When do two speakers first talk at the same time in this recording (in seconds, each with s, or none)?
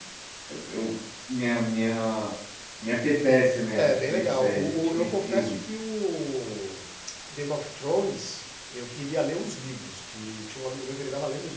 3.7 s